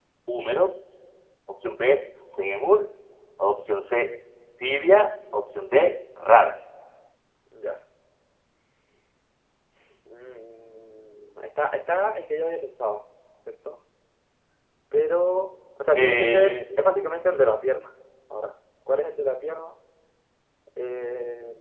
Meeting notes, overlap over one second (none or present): present